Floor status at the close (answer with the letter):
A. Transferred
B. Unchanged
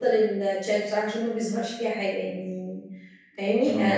B